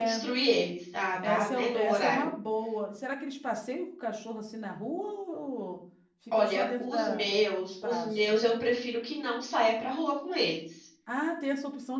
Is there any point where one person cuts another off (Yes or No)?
Yes